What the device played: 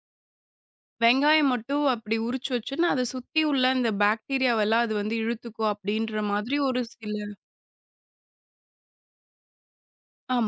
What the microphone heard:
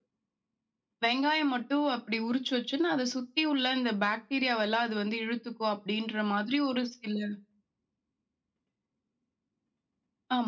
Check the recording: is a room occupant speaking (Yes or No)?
No